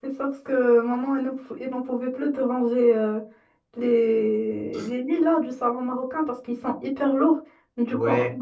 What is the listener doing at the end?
listening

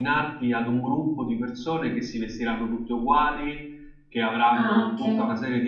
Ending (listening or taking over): listening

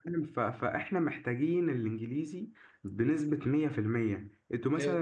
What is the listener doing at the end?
listening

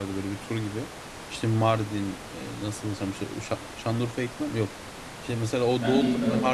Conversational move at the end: listening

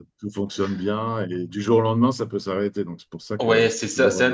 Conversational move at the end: taking over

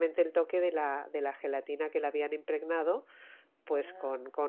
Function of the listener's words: listening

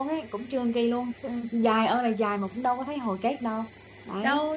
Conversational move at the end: taking over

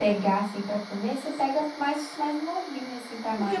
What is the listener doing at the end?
taking over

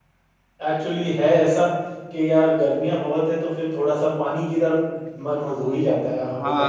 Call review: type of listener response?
taking over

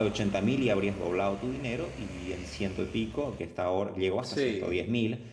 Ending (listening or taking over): listening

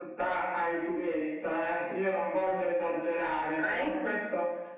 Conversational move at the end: listening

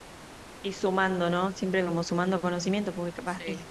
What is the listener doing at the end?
listening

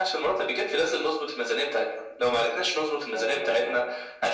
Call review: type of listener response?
listening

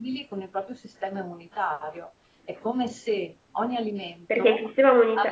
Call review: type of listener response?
taking over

